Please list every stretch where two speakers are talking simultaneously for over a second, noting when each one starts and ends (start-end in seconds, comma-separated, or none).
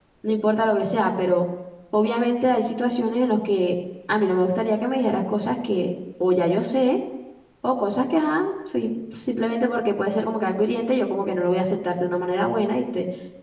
none